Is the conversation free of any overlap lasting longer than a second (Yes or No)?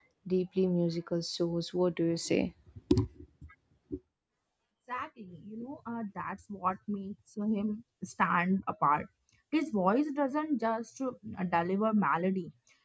Yes